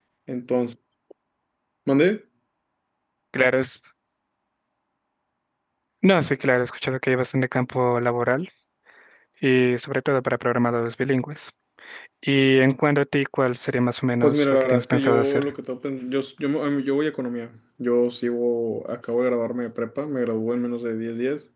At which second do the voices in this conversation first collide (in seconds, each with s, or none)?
14.2 s